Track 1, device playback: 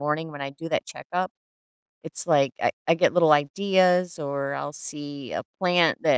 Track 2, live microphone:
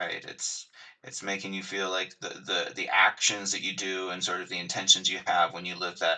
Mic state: user only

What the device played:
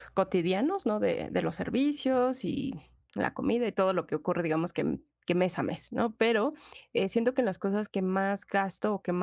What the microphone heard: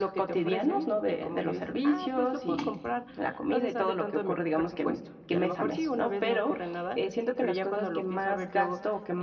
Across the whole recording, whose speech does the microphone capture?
both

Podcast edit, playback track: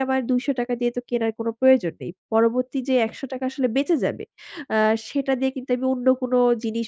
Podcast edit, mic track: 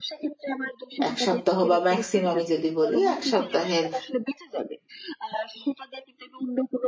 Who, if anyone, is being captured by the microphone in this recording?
both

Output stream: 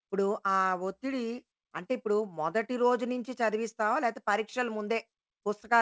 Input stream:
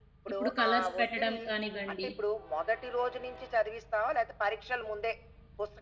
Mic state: both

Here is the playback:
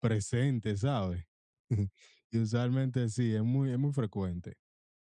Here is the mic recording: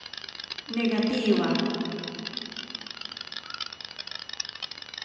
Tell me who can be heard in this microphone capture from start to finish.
user only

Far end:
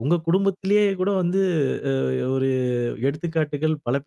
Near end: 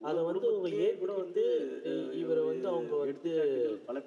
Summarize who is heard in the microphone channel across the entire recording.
both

